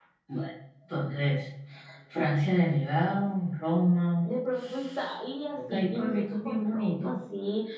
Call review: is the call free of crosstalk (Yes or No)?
No